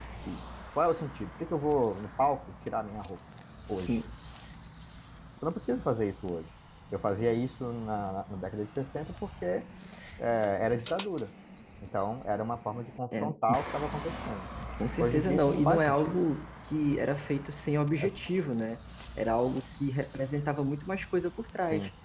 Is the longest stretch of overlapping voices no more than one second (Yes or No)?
No